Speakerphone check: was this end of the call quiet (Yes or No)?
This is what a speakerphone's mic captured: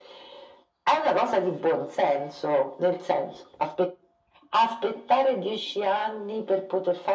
Yes